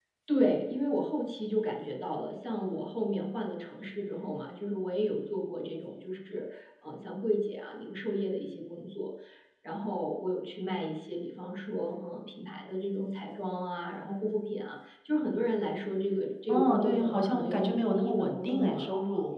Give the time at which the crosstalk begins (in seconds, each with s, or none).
16.5 s